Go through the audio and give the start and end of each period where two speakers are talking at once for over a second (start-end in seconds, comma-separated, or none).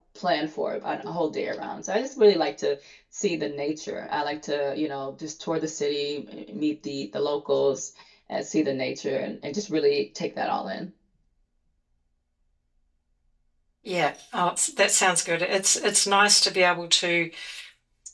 none